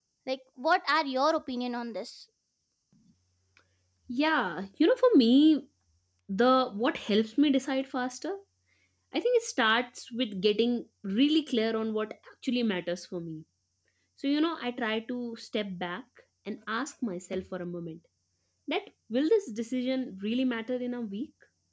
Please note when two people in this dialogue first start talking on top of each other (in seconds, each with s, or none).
none